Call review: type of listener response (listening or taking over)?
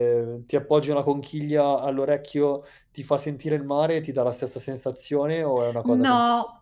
taking over